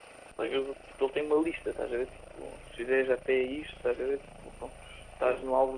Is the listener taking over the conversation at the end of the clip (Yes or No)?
No